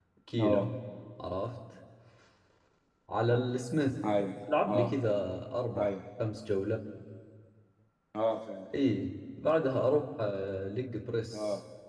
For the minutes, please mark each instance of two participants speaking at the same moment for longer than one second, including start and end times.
none

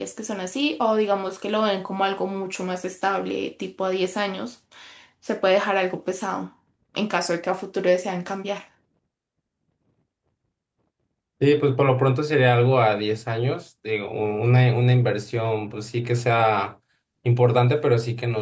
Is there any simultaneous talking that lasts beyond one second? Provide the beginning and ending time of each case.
none

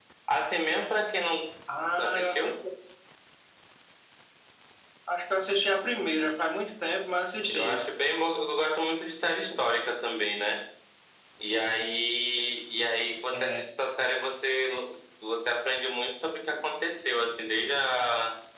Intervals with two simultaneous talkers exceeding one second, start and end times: none

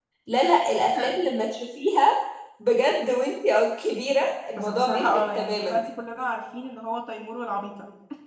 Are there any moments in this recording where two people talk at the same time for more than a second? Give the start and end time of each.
4.6-5.8

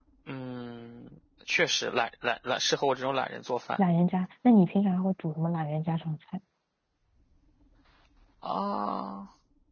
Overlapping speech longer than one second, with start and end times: none

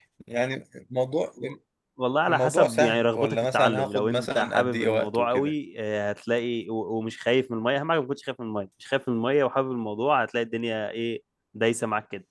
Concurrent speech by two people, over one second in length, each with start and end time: 2.3-5.5

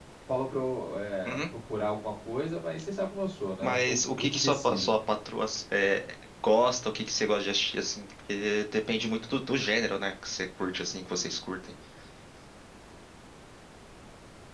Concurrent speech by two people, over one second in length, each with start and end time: 3.6-4.9

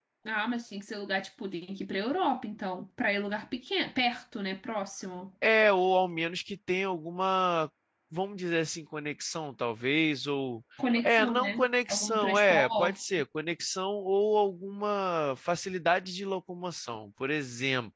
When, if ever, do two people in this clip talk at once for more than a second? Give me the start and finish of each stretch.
11.0-12.9

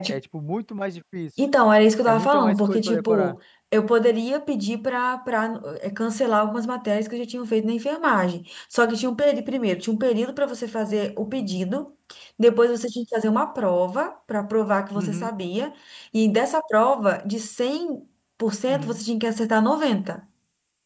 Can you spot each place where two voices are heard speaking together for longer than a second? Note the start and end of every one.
2.1-3.4

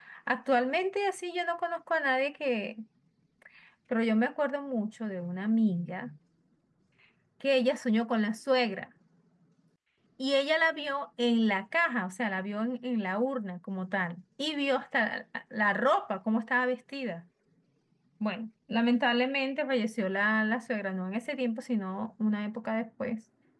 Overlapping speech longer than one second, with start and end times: none

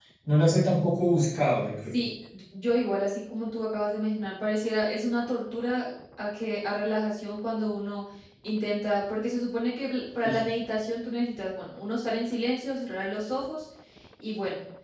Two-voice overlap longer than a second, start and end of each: none

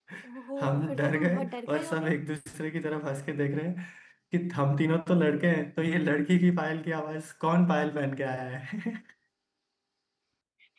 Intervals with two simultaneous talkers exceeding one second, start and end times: 0.6-2.1

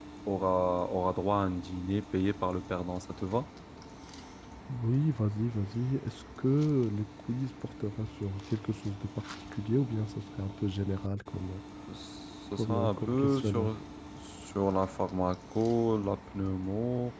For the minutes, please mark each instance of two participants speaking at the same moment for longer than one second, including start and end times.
12.5-13.7

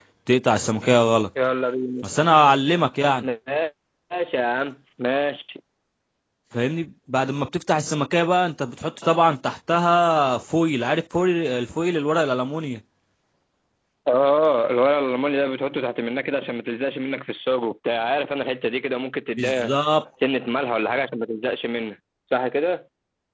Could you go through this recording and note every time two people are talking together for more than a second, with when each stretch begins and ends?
none

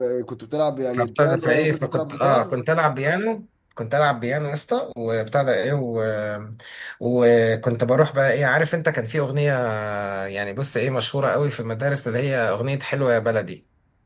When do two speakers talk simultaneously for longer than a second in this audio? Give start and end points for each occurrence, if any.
1.0-2.6

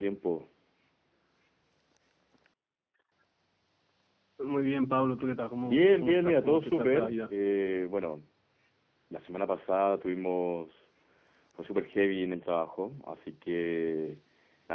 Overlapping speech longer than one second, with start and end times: 5.7-7.3

